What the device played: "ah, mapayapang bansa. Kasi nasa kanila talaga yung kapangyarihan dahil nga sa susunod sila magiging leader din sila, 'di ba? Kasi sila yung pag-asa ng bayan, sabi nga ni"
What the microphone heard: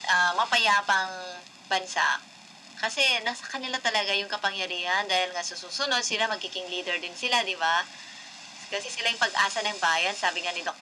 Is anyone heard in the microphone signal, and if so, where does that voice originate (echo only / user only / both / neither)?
echo only